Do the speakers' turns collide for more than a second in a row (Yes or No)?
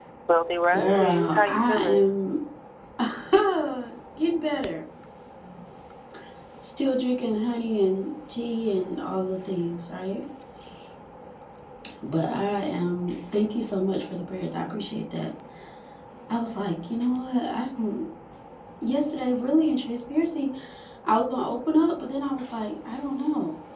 Yes